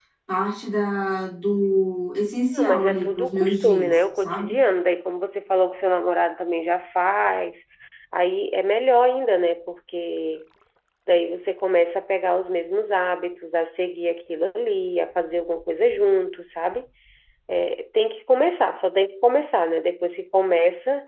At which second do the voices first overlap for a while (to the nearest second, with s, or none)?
3 s